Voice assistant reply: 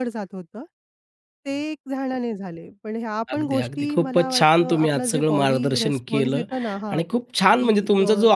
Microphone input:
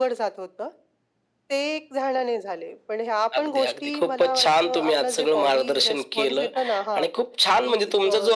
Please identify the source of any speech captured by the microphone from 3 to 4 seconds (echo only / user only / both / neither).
echo only